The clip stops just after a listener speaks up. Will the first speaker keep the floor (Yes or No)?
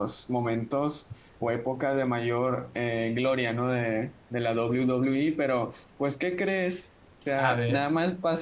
Yes